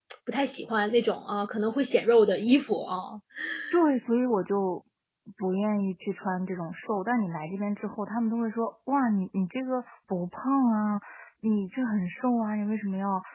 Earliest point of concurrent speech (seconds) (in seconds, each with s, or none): none